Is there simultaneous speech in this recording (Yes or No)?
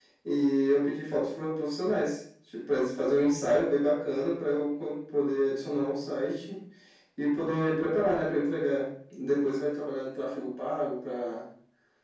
No